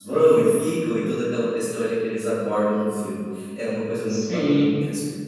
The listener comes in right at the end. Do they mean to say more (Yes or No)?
Yes